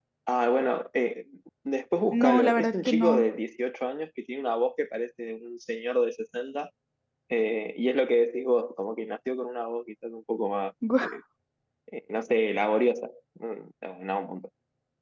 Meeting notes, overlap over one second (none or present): present